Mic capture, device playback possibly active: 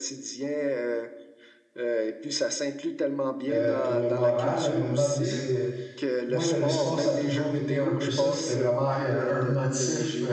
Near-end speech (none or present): present